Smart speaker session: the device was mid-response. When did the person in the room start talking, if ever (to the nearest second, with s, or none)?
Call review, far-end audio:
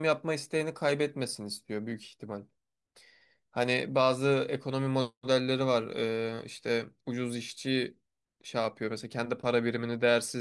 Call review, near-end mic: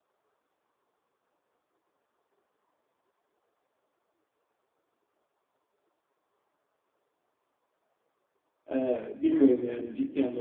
9 s